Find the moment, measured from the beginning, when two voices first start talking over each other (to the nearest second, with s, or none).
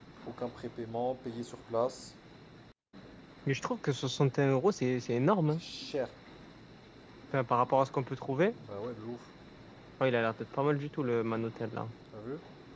none